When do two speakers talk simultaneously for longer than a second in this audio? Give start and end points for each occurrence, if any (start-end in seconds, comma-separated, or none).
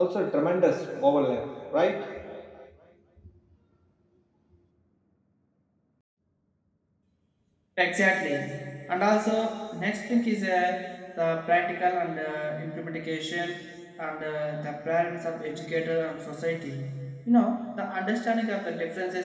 none